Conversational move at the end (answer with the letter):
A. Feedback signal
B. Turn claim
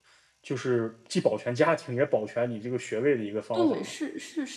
B